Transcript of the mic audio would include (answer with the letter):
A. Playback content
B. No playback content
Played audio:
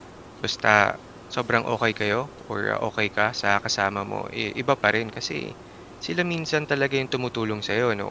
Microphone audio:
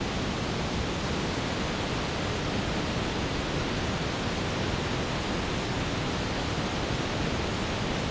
B